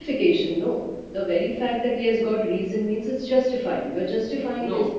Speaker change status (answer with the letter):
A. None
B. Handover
B